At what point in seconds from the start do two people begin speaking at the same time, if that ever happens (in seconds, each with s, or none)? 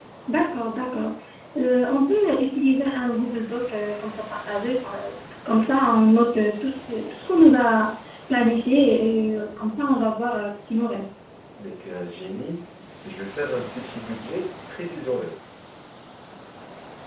none